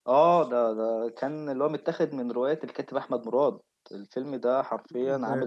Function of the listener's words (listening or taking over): taking over